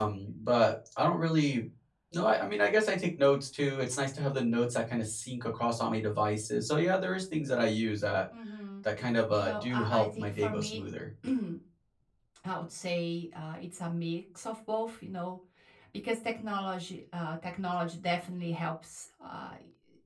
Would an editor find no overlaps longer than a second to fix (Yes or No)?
No